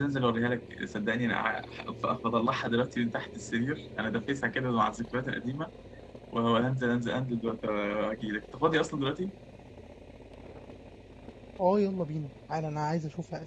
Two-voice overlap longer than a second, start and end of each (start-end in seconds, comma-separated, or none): none